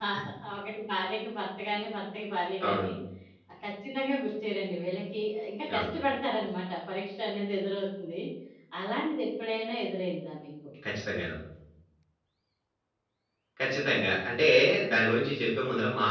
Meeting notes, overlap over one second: none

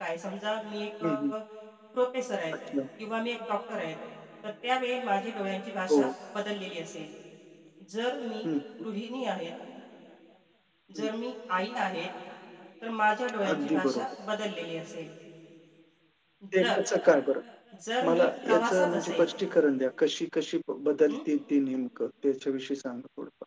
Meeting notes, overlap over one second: present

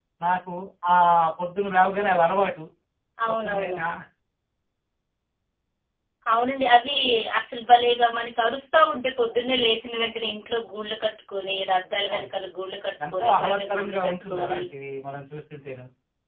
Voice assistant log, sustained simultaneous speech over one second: present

